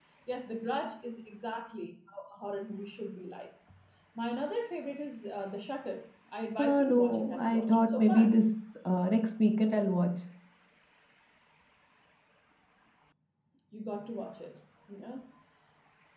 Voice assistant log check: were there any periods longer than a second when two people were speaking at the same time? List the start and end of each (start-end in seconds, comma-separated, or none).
6.6-8.3